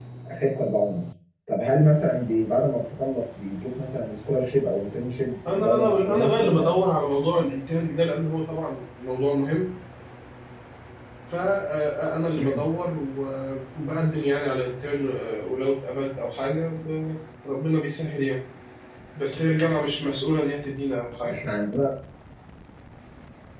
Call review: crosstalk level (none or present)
present